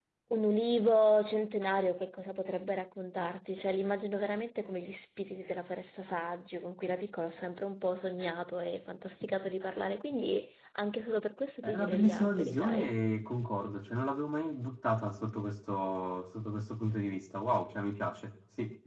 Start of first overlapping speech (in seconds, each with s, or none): 11.6 s